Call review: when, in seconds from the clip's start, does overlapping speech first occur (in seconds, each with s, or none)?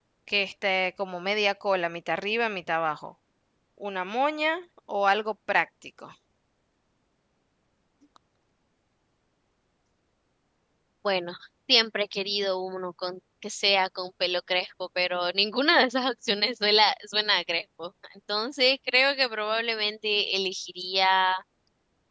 none